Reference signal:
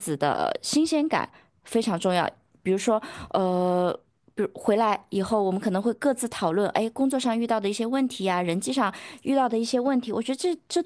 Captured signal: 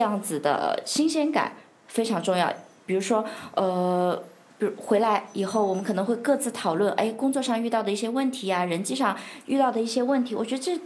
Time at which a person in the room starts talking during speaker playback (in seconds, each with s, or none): none